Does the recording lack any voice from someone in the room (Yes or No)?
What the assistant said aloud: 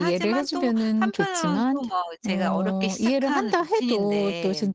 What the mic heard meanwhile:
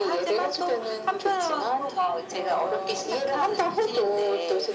Yes